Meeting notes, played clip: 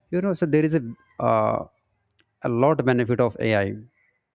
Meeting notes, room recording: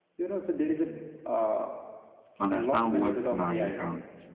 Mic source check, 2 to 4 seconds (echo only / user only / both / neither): both